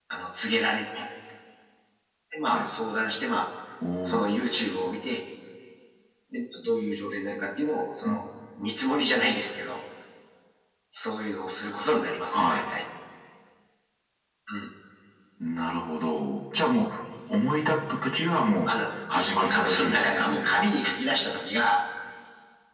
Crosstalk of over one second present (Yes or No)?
Yes